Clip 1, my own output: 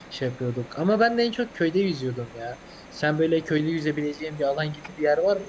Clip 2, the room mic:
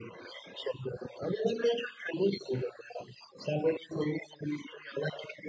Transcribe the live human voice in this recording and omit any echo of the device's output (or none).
none